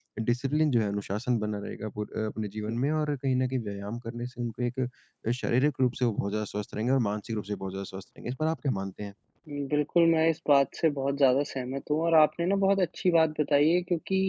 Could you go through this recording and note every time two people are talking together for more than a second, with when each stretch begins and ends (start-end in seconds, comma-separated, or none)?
none